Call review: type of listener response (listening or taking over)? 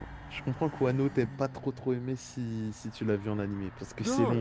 taking over